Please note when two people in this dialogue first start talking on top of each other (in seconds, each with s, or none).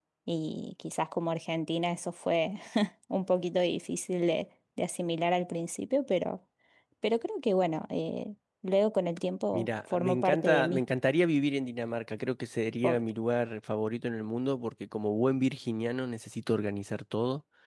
9.5 s